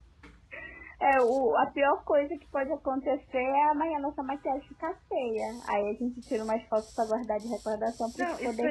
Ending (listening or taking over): taking over